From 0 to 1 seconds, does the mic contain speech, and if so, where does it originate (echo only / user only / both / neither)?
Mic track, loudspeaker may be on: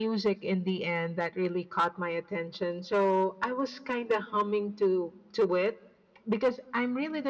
echo only